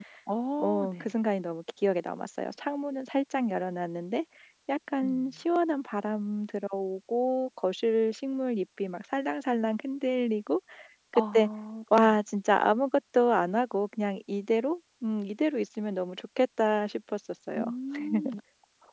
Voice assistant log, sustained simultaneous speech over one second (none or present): none